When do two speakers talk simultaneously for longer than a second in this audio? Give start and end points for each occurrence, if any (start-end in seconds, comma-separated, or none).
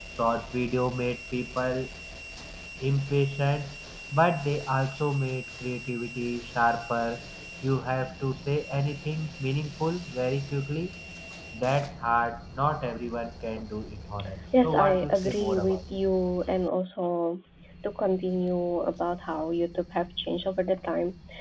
14.6-16.0